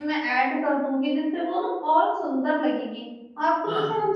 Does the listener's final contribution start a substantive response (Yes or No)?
No